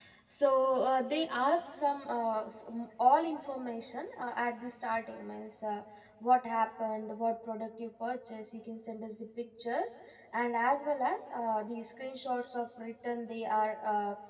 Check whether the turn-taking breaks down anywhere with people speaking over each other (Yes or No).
No